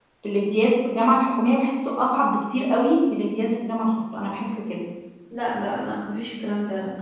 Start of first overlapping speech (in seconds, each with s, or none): none